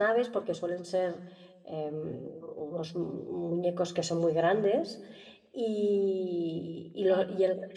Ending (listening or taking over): listening